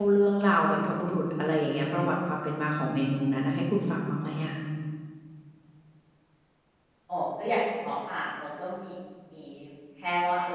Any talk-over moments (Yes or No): No